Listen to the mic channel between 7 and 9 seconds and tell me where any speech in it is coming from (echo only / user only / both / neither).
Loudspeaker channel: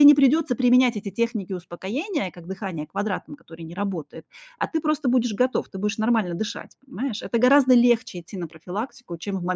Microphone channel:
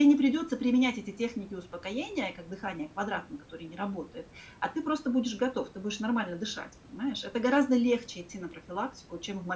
echo only